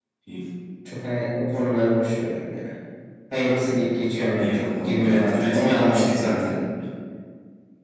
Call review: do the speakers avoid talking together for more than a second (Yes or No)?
No